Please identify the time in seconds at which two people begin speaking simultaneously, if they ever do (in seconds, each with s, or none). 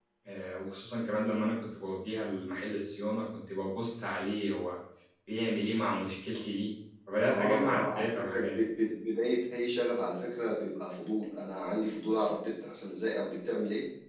7.2 s